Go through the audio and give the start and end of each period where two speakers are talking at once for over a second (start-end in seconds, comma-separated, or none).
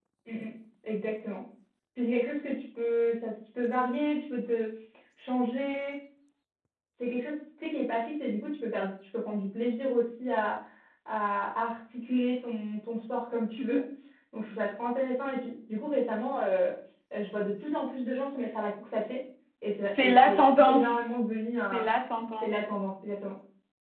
19.9-21.1